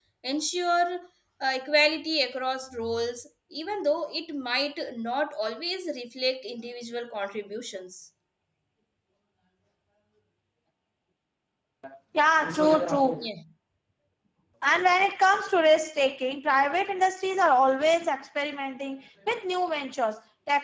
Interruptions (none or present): none